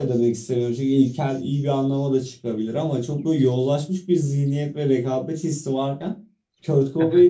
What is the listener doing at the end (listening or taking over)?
listening